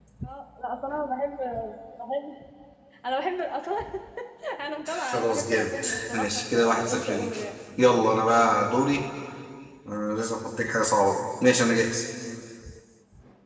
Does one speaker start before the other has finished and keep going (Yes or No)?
Yes